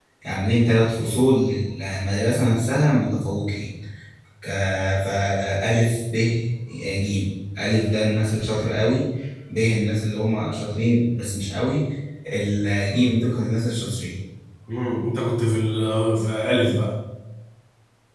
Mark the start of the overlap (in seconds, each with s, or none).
none